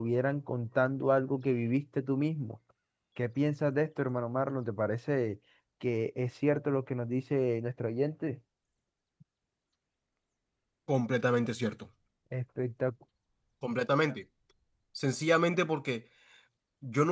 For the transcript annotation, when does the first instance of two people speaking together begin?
none

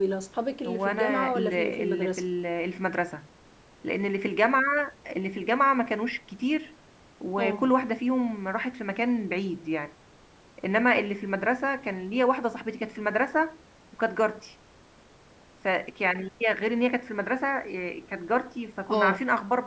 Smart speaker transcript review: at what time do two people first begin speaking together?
0.7 s

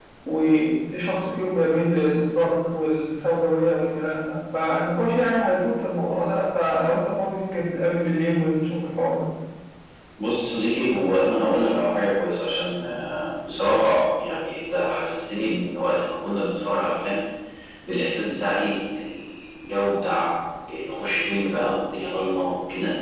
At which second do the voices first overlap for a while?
none

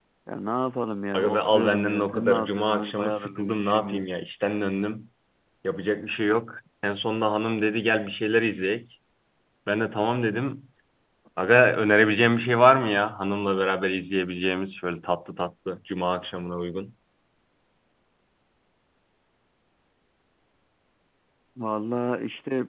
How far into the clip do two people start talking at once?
1.1 s

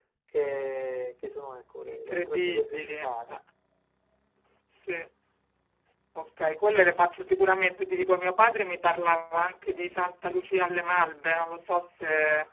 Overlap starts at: 1.8 s

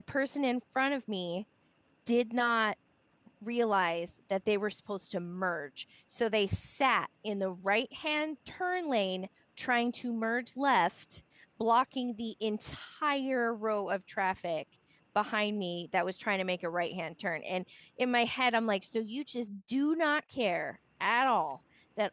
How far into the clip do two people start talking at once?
none

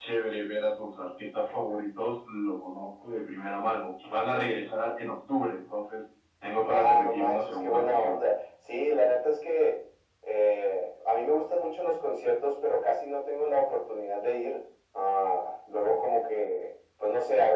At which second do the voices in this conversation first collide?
6.6 s

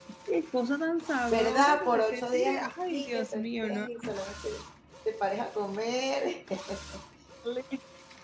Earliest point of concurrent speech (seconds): 1.3 s

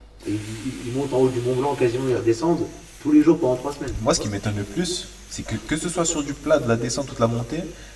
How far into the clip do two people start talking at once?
none

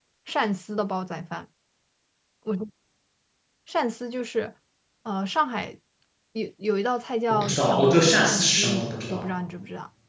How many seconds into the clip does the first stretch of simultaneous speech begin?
7.3 s

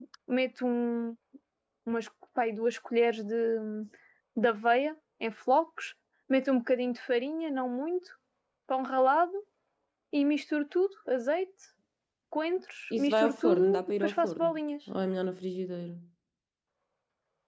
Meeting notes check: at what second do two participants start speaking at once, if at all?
13.0 s

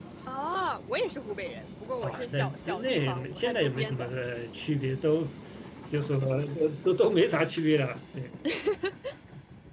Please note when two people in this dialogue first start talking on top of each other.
2.0 s

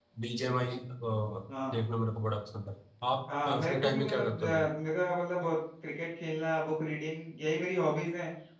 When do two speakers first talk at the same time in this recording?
3.5 s

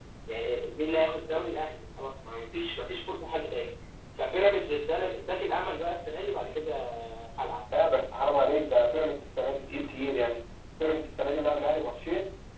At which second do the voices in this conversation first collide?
none

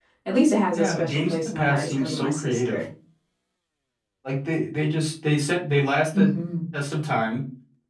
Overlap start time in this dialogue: 0.8 s

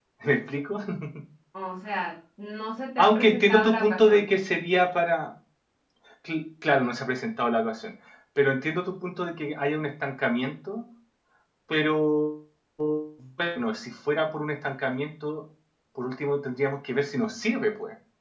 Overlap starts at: 3.0 s

